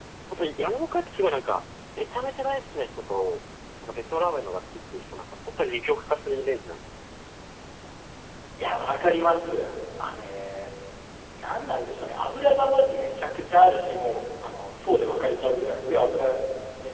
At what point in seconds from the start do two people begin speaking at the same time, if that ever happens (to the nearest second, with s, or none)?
none